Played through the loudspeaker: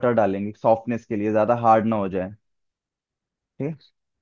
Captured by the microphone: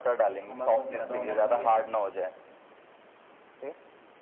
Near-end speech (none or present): present